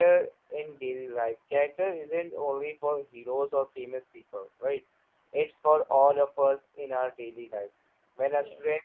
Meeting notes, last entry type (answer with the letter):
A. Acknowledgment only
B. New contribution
A